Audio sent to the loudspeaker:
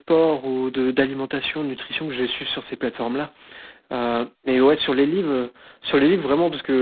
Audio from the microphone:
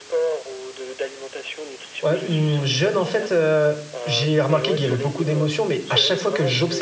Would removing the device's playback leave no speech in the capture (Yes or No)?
No